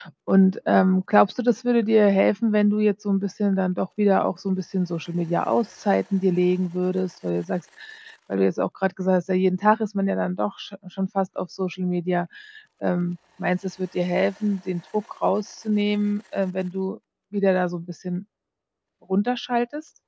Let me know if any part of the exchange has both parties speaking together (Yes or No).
No